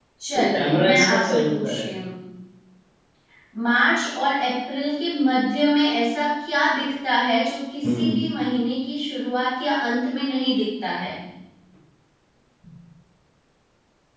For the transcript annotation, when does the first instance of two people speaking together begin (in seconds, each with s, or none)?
0.5 s